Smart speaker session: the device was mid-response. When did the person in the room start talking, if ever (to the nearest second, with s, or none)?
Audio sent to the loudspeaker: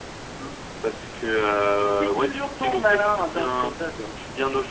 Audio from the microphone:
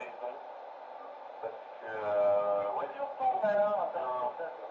none